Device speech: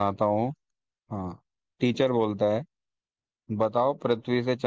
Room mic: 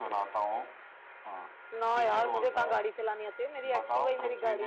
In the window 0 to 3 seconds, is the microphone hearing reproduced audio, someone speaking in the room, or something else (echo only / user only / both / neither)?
both